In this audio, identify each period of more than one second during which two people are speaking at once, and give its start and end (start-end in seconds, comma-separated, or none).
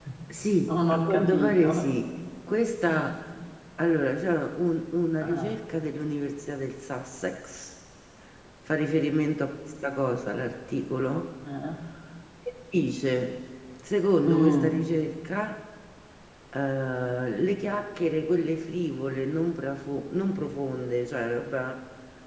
0.6-1.9